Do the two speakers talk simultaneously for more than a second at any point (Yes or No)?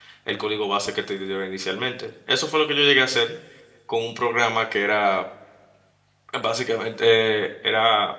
No